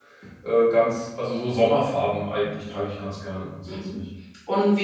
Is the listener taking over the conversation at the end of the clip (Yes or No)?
Yes